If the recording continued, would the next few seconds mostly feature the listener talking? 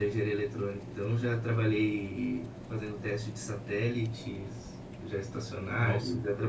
No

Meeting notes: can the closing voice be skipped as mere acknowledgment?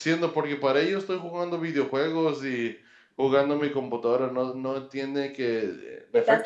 Yes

